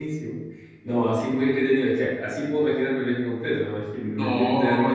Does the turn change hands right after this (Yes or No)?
No